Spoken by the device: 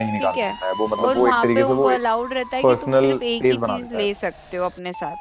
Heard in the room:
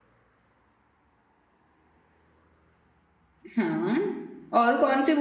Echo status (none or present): none